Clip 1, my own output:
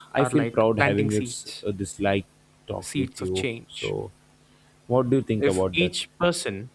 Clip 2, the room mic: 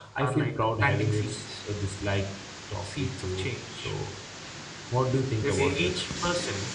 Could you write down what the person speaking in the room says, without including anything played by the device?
it safely.

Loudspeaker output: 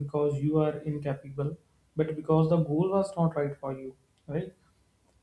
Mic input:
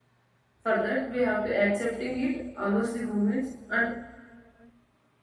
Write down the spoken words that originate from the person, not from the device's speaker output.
For that, we have to accepting it allows the movements and

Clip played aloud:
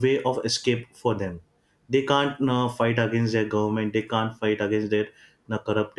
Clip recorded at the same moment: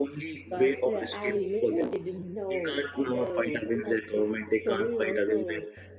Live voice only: but uh, I literally didn't know the like the story also.

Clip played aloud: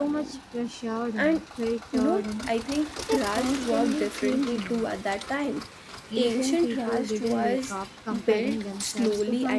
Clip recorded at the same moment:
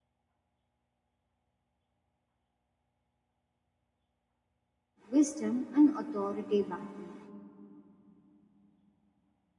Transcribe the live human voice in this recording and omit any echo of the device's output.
wisdom, and authority back then.

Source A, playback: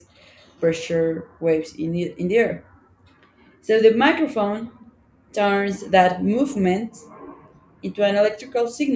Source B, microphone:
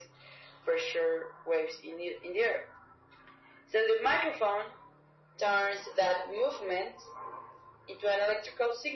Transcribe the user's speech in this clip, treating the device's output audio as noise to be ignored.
none

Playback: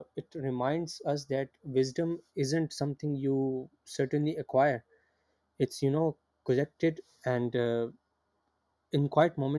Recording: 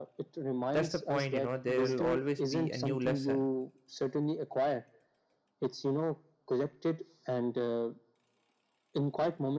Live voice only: that's the point you know there will always be a new lesson

